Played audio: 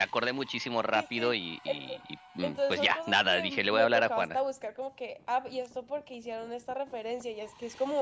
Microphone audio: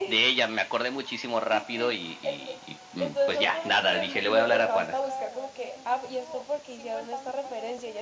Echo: present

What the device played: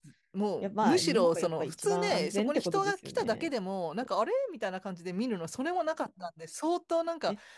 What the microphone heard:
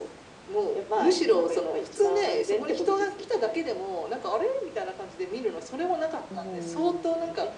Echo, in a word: present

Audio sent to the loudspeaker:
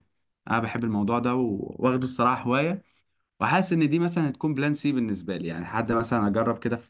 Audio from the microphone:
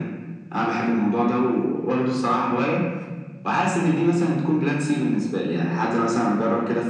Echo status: present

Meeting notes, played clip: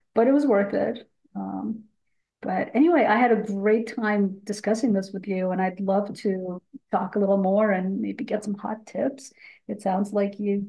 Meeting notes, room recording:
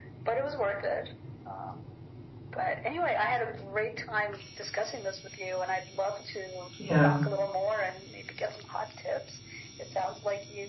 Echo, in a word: present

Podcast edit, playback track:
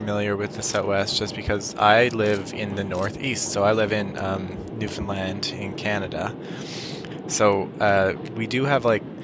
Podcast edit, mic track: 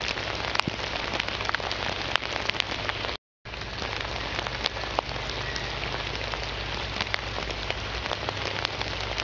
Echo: none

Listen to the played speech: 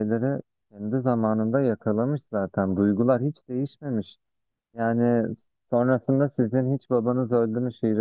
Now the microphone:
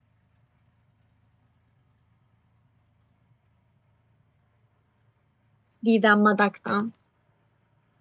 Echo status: none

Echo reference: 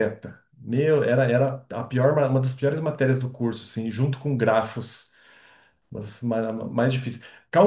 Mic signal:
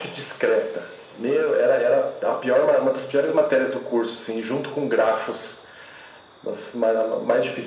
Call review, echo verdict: present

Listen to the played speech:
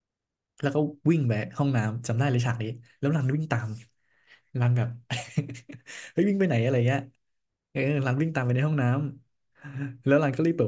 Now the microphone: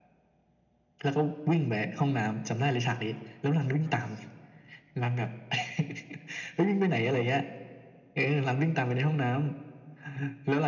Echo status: present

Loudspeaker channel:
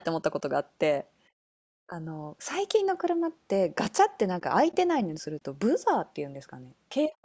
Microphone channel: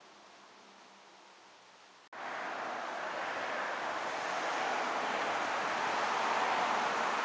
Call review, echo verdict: none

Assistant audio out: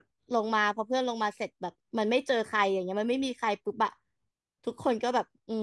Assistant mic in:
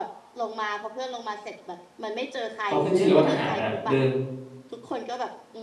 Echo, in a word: present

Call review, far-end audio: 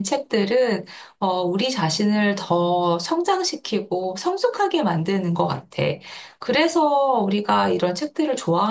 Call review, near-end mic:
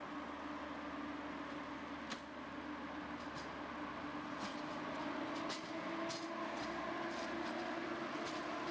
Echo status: none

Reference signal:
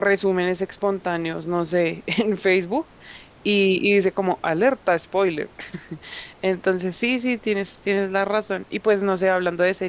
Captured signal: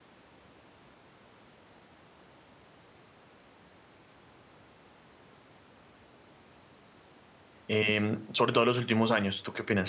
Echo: none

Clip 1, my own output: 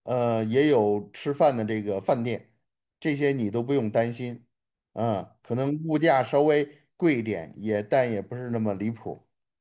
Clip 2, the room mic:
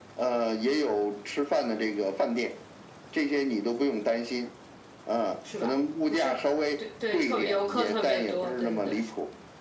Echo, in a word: present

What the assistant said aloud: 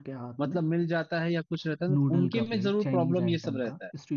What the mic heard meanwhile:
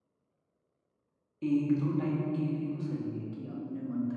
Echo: none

